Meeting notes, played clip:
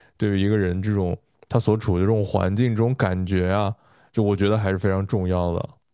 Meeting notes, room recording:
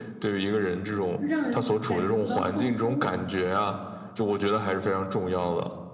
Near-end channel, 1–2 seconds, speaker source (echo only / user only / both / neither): both